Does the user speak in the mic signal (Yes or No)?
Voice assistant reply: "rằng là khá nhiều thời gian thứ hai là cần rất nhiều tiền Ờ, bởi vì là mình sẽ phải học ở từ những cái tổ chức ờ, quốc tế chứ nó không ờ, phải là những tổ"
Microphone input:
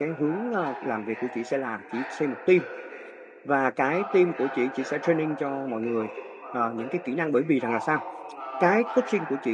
Yes